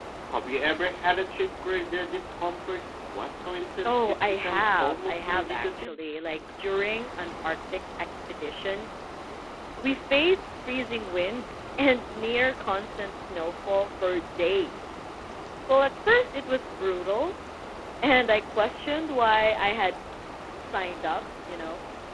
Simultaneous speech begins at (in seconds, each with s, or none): 3.8 s